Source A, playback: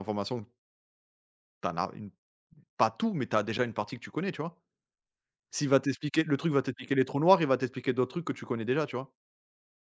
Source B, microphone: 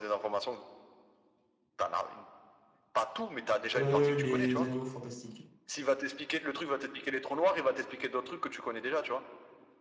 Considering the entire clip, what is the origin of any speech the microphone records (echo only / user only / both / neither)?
both